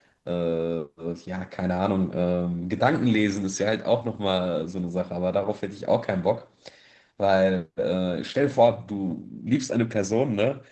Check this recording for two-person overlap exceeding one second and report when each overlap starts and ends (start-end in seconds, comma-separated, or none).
none